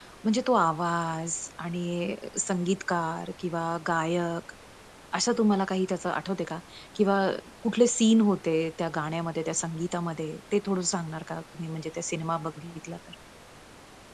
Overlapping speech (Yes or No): No